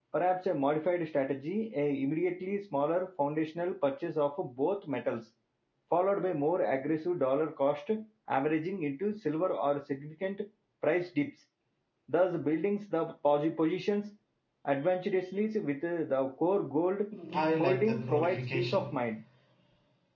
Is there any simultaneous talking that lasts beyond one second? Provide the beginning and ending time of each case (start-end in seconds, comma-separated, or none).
17.6-19.0